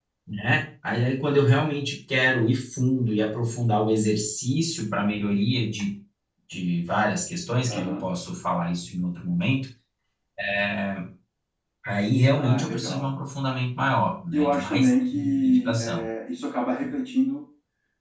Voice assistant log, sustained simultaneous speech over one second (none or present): present